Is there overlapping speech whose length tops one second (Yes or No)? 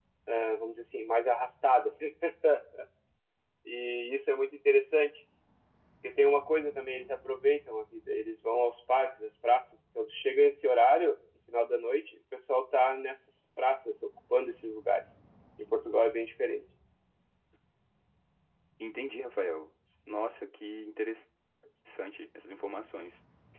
No